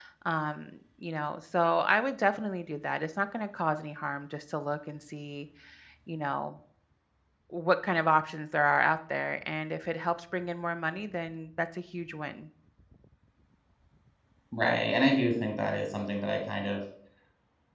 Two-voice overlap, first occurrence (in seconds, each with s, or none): none